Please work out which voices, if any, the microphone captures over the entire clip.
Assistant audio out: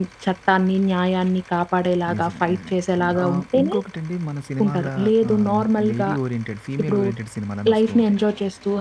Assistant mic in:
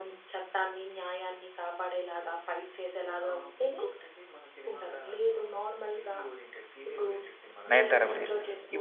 both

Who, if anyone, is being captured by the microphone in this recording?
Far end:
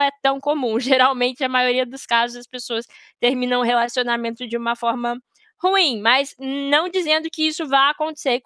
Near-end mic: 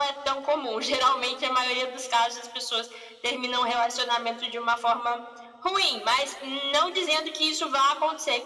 echo only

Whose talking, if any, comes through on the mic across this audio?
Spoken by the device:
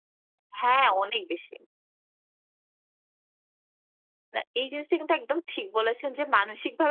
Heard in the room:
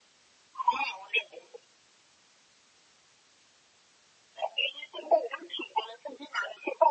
echo only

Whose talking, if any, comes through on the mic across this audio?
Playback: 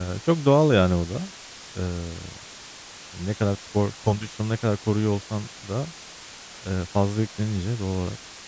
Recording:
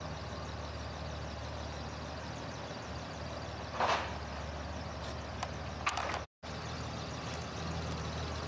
neither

